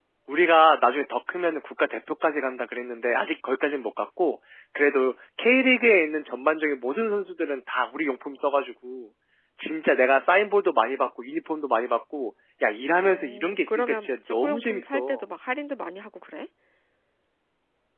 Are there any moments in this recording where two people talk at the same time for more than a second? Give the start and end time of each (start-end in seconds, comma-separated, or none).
13.0-15.2